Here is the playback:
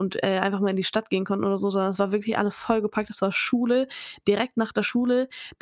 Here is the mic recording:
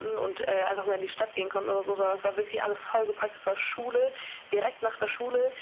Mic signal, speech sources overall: echo only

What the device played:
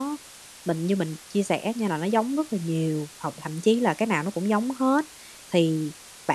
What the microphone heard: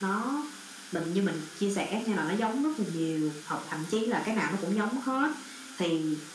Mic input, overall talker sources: echo only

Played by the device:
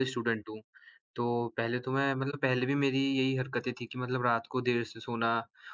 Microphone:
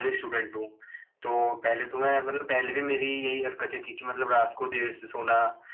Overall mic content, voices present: echo only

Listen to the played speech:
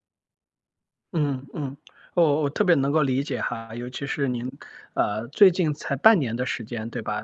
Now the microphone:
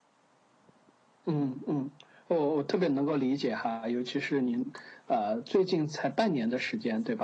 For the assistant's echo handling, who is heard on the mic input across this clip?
echo only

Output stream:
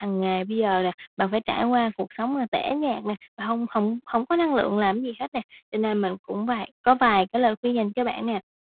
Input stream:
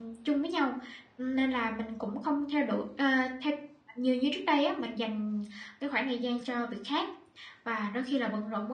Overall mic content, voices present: user only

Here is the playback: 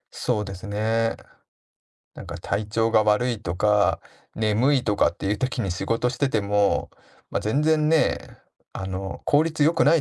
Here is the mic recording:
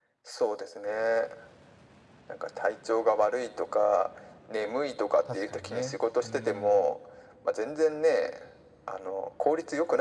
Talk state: both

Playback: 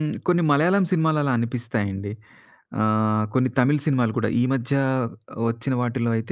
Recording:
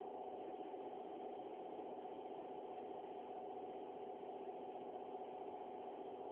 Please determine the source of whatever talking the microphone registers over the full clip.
neither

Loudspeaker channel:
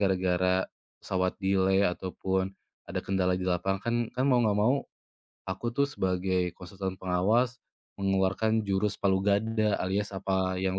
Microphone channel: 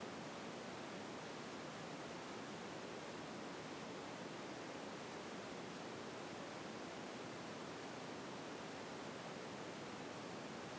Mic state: neither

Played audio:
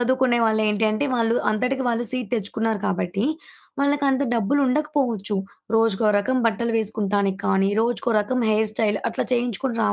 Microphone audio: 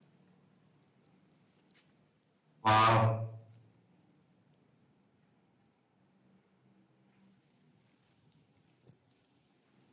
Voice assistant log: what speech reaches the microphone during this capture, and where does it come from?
user only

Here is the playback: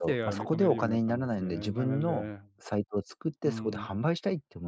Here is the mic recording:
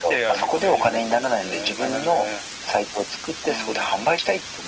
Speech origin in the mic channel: echo only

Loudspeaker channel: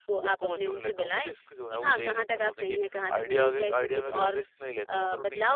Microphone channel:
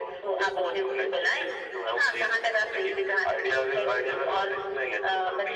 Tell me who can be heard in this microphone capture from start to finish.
echo only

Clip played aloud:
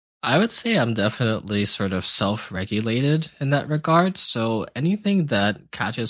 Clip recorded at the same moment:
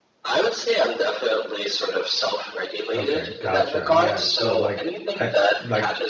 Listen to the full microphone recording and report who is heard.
both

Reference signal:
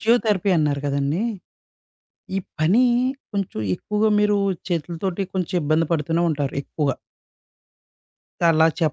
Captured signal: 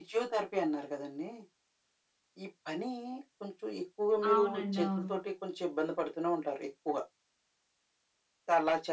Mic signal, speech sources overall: both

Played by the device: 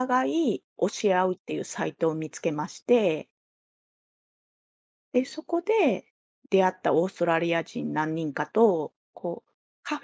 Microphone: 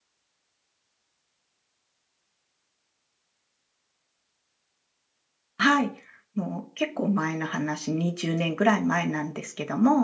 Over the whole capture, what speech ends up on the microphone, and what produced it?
user only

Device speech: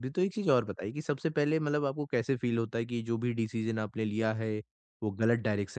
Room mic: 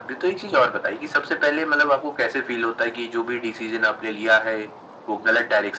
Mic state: echo only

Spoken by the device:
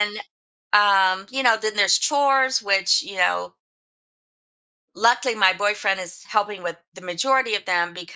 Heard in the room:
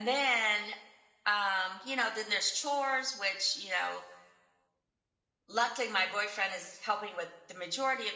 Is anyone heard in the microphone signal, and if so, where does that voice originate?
echo only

